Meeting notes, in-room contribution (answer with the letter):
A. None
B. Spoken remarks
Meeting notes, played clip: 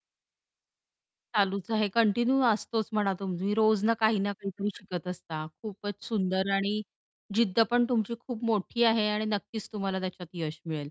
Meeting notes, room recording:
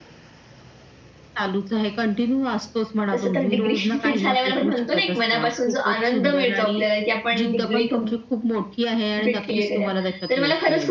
B